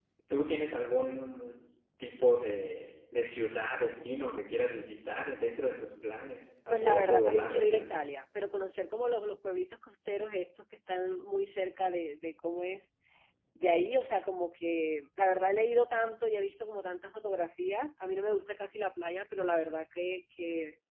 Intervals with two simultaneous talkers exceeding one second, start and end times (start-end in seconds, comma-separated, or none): 6.7-8.0